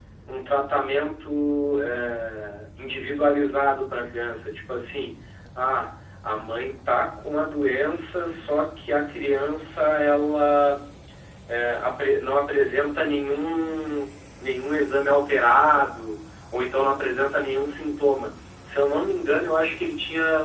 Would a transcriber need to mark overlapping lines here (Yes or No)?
No